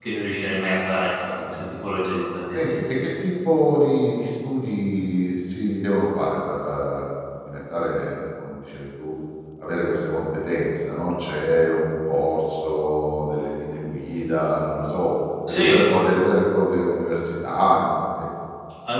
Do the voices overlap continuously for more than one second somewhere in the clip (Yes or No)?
No